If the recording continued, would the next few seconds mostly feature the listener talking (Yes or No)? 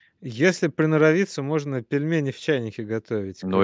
Yes